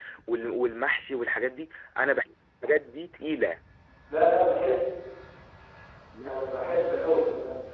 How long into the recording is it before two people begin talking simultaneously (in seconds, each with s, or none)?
none